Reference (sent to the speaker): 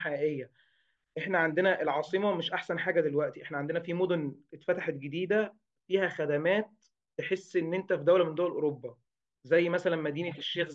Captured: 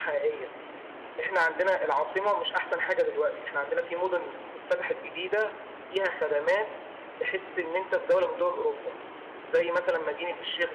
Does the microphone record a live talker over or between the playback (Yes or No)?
No